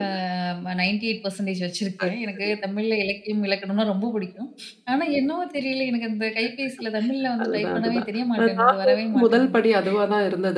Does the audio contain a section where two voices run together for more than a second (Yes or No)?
Yes